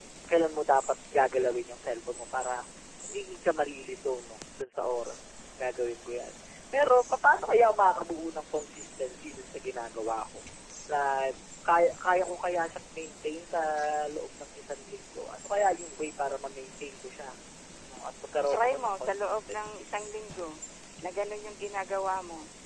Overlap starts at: 18.4 s

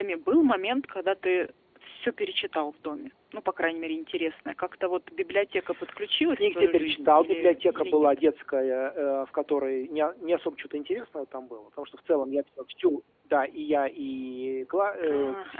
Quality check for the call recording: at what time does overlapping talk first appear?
6.4 s

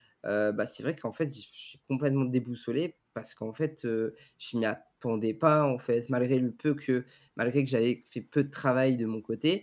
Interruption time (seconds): none

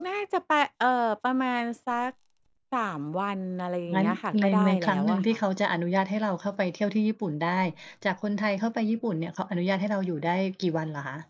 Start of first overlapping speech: 3.9 s

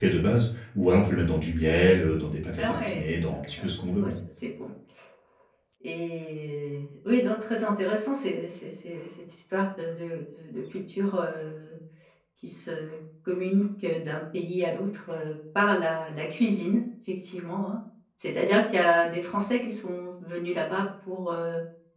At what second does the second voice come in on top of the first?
2.6 s

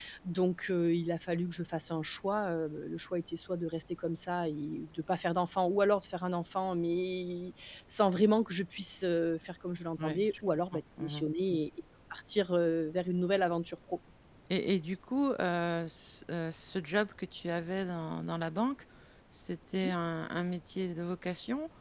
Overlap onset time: 10.0 s

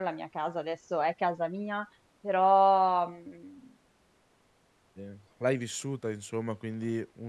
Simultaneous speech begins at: none

